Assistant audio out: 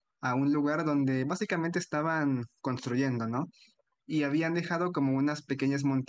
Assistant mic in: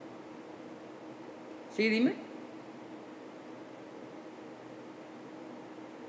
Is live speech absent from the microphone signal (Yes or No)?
No